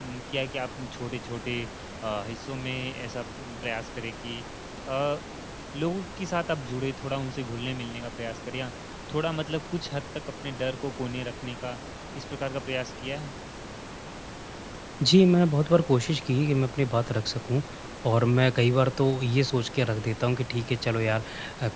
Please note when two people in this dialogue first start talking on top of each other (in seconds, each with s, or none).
none